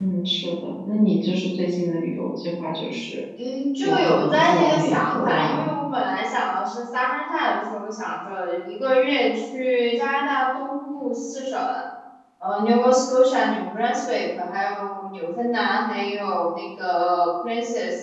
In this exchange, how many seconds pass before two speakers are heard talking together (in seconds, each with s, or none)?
3.8 s